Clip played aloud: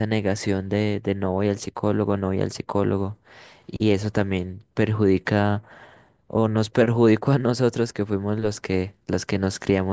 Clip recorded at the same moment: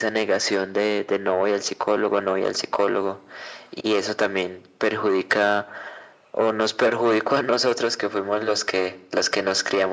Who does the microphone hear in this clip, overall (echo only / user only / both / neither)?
echo only